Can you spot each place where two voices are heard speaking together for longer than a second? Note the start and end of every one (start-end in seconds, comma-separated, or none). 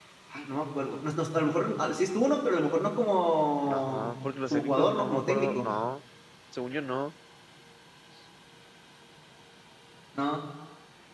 3.6-5.7